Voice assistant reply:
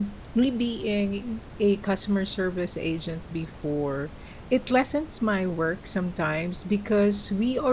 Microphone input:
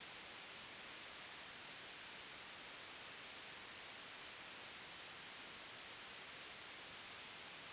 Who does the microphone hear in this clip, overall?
neither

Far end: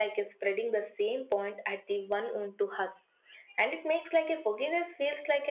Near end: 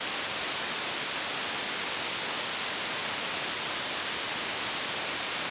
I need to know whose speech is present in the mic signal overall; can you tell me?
neither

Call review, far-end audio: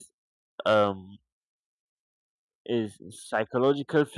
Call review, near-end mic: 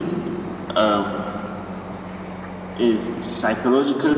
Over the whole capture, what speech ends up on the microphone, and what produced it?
echo only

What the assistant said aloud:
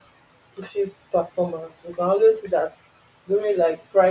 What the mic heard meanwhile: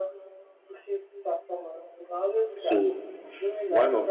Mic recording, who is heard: both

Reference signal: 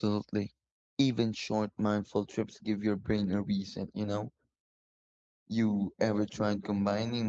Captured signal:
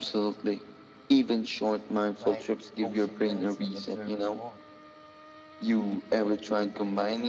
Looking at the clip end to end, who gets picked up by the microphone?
both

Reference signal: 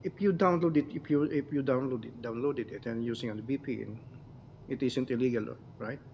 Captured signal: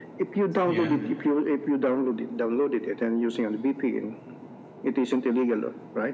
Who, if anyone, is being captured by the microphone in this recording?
both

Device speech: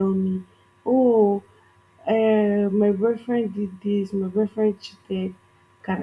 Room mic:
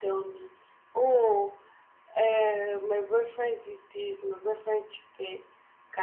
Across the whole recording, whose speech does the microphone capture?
echo only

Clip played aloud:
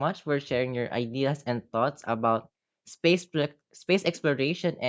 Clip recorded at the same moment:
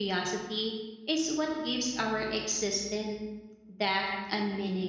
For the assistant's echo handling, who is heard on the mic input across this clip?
user only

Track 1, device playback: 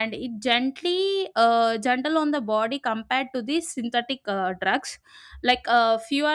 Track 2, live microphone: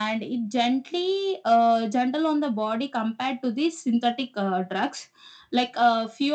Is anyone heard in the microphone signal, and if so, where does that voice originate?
echo only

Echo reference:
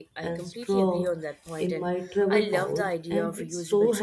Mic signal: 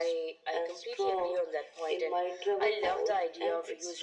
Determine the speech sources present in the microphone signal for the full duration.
echo only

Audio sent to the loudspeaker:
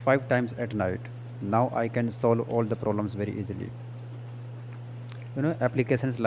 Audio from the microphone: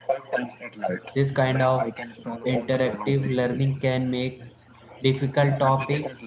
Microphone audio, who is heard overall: both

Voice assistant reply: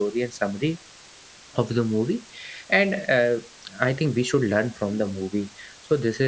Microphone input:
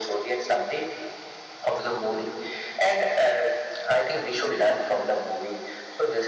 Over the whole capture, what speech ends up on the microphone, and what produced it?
echo only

